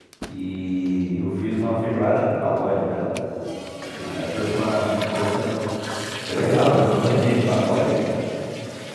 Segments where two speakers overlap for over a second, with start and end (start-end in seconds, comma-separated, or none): 6.4-7.8